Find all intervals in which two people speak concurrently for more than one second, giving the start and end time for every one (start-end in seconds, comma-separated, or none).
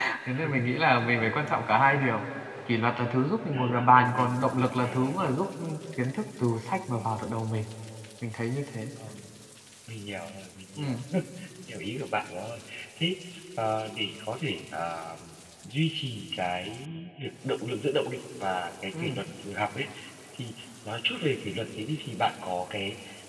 3.5-5.5